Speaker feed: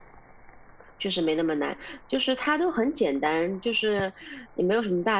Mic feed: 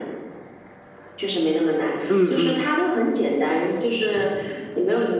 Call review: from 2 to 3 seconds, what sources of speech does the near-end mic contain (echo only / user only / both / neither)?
both